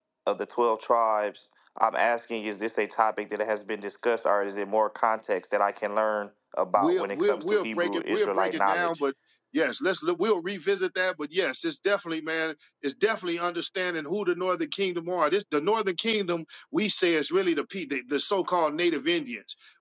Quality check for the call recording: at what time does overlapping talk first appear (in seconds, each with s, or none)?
6.8 s